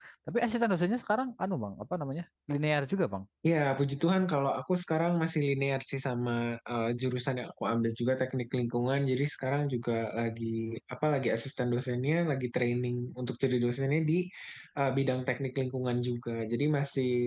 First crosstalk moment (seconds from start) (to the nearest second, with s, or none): none